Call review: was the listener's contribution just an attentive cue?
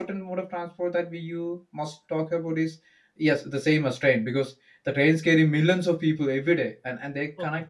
Yes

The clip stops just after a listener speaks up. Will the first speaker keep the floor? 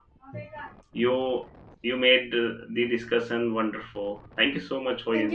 No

